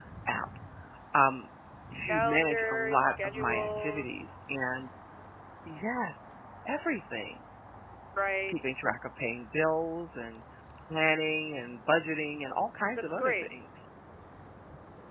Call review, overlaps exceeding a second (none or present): present